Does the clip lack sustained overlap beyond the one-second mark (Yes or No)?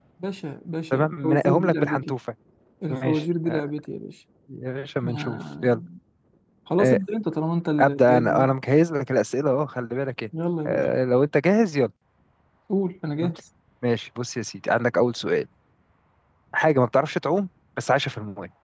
No